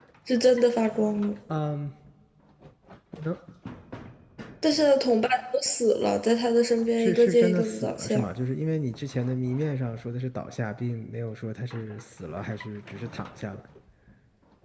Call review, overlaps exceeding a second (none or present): present